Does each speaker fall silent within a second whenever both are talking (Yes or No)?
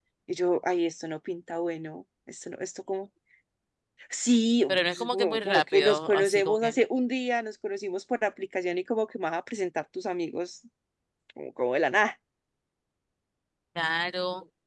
No